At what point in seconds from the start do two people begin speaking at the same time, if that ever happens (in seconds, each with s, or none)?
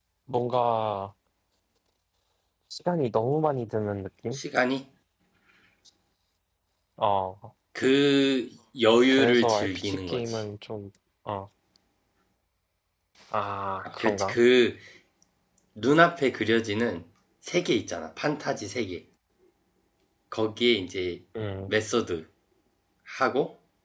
9.1 s